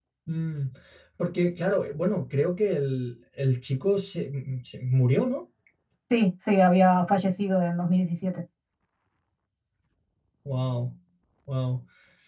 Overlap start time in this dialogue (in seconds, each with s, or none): none